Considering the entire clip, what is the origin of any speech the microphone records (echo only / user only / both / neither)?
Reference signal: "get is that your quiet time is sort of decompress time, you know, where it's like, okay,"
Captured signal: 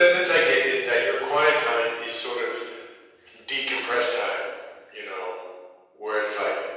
echo only